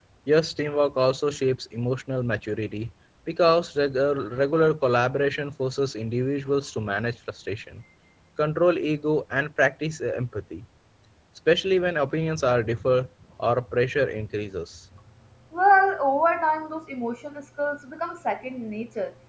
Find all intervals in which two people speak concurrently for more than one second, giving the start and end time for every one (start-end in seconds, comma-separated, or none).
none